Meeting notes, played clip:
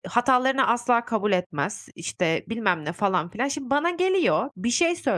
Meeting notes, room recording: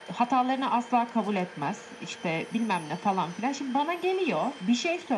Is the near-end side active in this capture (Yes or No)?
No